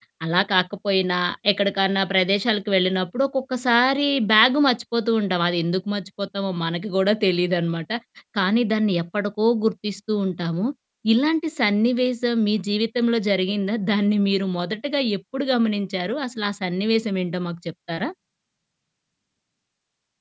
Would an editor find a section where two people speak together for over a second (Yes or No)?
No